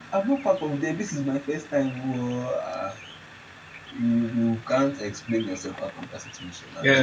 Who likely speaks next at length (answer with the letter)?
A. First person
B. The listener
B